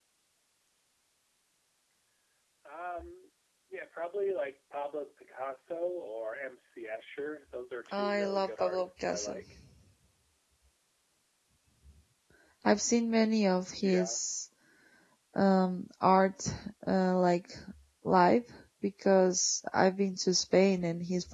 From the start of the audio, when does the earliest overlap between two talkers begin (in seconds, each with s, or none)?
7.9 s